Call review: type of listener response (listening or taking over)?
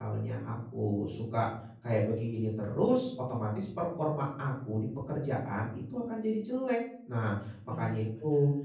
listening